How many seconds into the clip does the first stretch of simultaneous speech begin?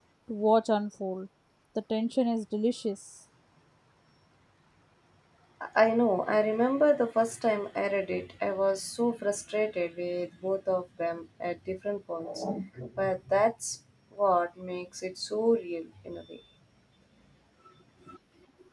none

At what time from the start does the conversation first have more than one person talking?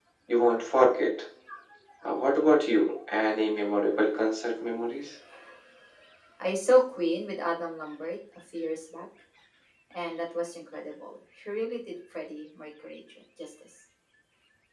none

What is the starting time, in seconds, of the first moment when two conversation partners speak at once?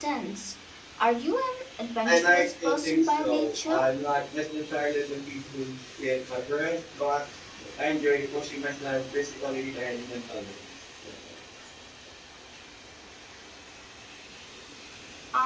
2.1 s

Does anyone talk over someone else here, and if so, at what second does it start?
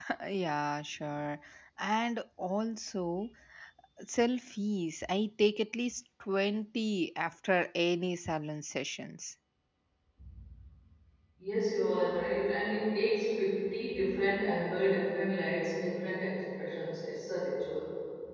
none

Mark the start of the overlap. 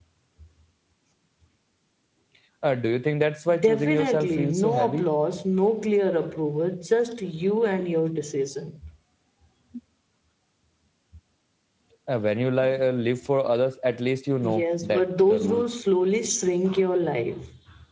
3.6 s

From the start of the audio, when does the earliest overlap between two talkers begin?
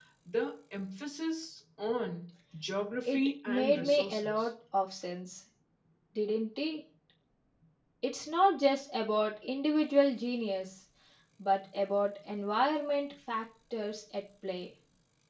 3.0 s

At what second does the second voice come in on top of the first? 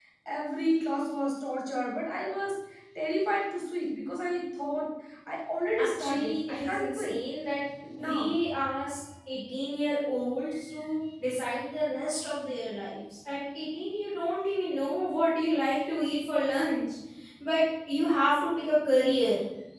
5.8 s

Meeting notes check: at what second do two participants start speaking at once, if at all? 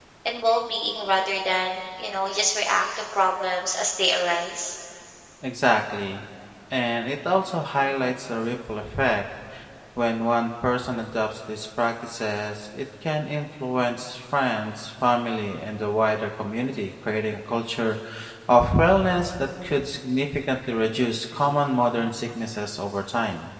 none

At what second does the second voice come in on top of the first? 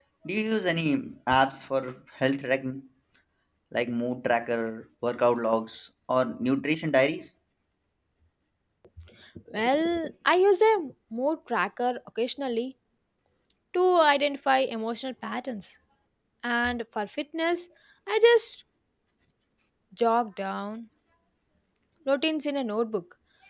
none

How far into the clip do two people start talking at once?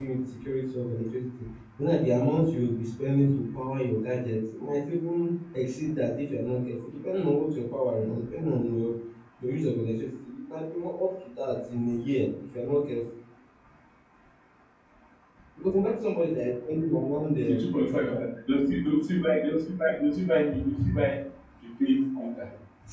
none

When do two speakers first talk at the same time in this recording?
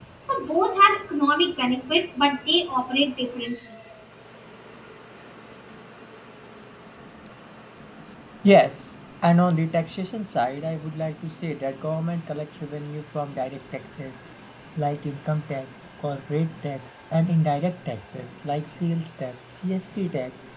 none

